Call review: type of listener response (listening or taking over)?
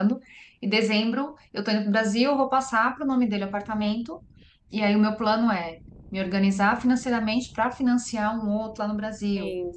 listening